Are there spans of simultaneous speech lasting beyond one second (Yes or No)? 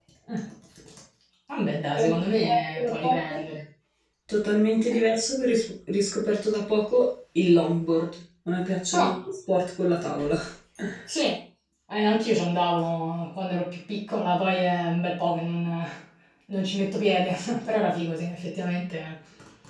Yes